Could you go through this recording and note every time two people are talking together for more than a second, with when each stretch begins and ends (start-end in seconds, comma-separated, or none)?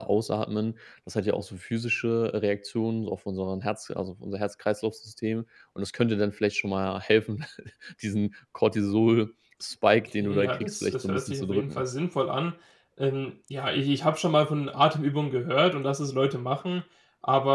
10.2-11.8